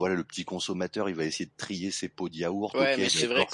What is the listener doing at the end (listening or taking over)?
taking over